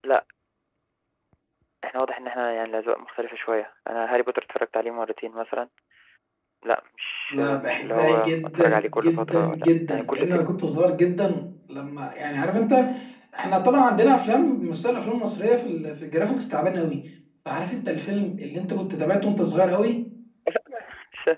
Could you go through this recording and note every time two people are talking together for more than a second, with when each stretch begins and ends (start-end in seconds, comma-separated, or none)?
7.3-10.8